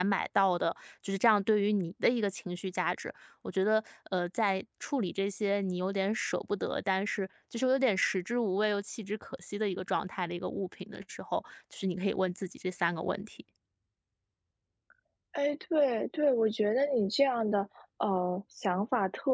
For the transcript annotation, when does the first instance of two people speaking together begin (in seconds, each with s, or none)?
none